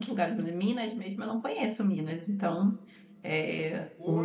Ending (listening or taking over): taking over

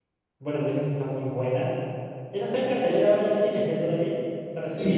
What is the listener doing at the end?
taking over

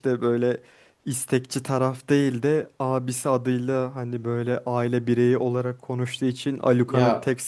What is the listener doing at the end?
listening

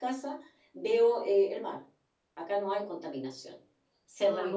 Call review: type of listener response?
taking over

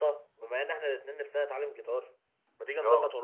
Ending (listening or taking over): listening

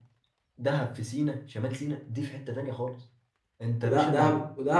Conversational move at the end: taking over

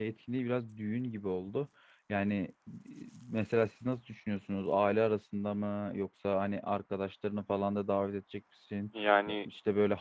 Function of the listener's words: listening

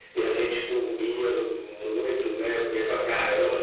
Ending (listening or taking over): listening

